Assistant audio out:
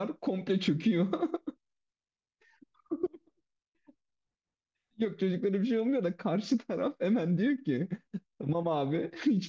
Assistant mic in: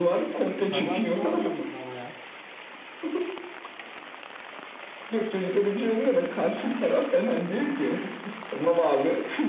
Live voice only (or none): Kazanmış olmuyor musun ama ya?